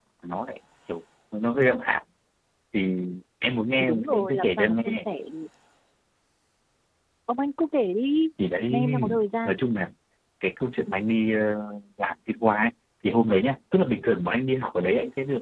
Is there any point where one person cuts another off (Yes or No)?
Yes